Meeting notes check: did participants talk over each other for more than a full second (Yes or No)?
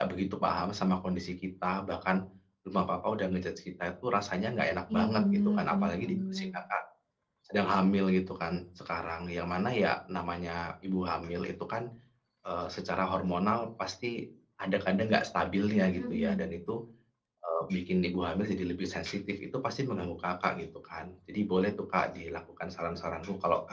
Yes